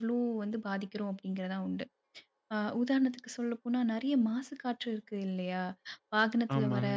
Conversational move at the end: listening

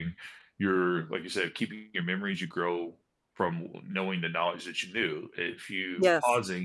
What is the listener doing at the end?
listening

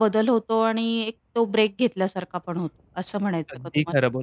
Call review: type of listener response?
taking over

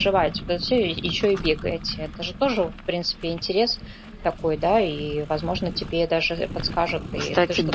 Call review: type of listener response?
taking over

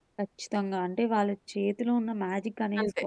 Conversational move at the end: listening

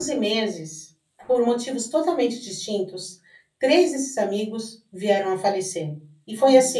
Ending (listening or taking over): listening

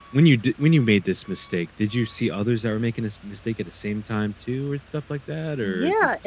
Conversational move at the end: taking over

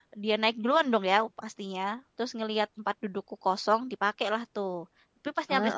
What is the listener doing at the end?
listening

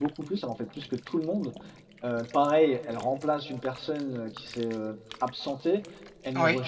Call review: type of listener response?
listening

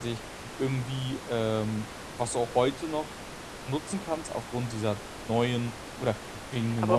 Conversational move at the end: taking over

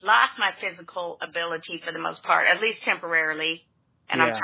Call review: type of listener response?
listening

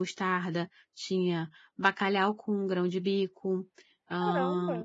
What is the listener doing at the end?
taking over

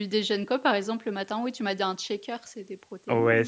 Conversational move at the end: taking over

